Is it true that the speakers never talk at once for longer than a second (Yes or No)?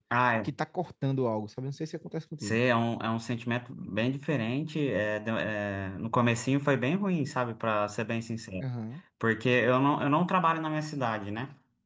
Yes